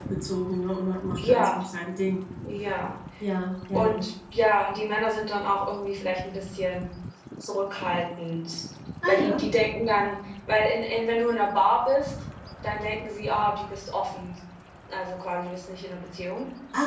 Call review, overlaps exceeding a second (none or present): none